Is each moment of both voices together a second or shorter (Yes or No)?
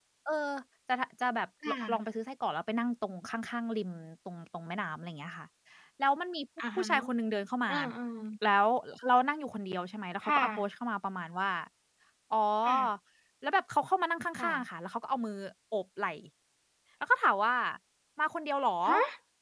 Yes